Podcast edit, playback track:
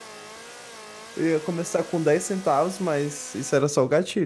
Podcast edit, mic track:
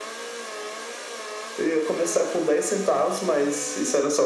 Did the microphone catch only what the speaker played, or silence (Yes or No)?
Yes